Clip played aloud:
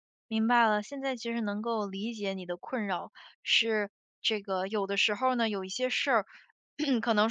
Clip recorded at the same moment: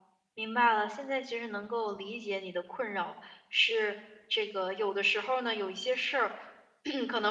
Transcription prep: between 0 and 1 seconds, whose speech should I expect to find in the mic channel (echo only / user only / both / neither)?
echo only